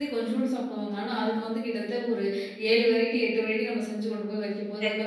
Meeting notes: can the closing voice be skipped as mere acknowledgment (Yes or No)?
No